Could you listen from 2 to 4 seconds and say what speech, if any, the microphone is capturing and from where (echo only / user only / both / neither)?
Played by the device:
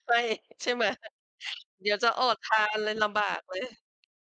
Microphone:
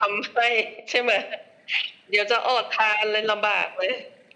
echo only